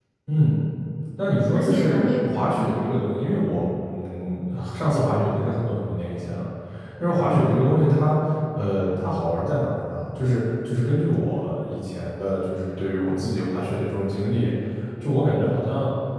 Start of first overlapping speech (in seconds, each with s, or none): 1.5 s